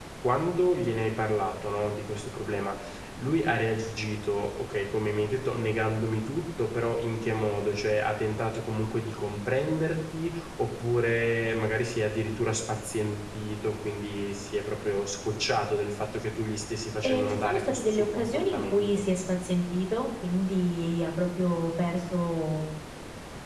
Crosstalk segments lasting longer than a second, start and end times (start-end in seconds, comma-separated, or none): 17.0-19.0